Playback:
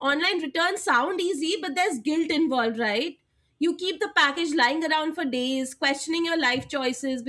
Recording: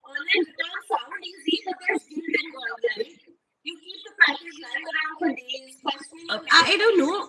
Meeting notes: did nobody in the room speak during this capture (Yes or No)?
No